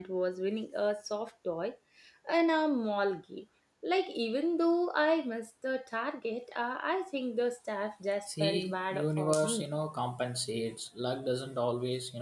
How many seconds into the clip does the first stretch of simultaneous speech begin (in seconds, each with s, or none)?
8.3 s